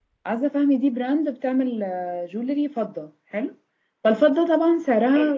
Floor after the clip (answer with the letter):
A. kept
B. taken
A